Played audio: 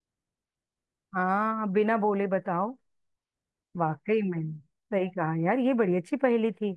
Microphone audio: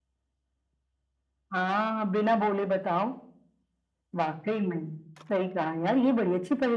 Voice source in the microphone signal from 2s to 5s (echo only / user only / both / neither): echo only